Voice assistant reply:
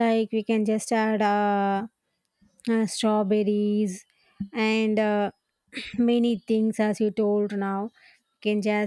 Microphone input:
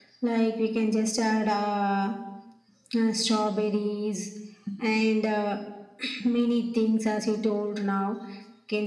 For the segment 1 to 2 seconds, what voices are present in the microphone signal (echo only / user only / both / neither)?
echo only